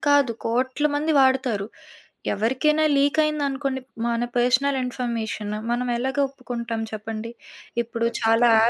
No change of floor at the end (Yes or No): Yes